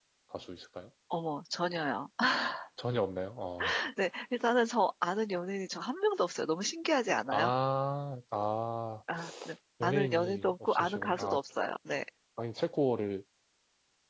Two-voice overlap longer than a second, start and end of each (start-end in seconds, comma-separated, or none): 9.8-11.4